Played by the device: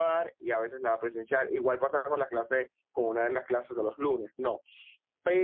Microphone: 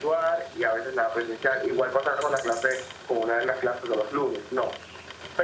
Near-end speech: none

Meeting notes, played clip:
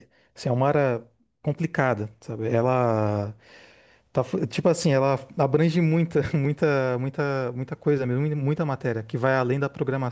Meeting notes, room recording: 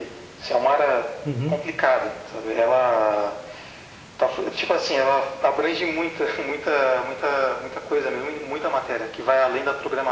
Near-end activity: present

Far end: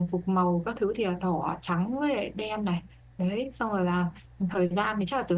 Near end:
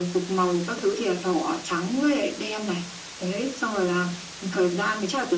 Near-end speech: none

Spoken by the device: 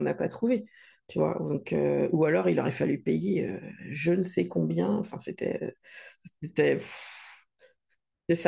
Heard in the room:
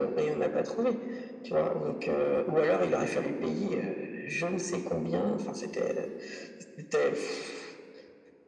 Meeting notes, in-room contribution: none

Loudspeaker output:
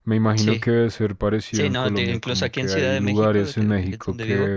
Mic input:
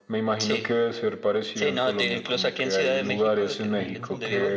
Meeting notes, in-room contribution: present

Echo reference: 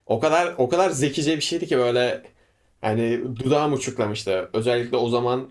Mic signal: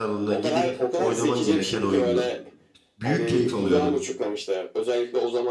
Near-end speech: present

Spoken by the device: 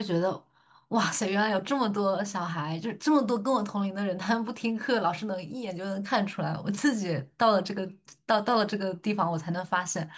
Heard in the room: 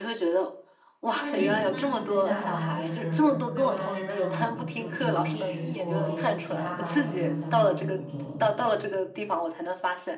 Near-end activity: present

